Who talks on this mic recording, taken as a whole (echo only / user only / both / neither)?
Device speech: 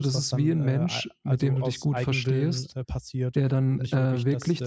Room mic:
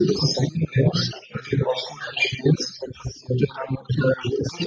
echo only